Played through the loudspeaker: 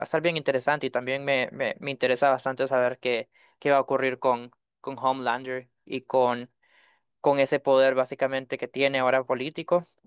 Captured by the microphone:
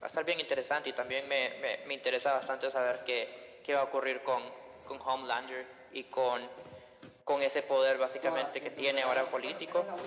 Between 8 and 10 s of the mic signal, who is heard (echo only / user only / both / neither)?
both